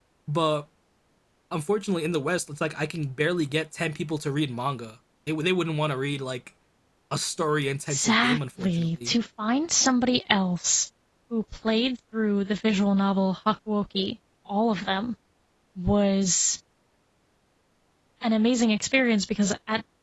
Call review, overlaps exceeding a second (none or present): present